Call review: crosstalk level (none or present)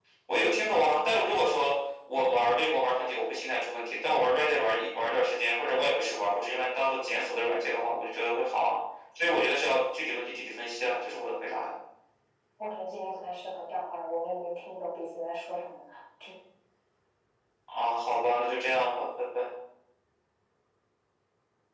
none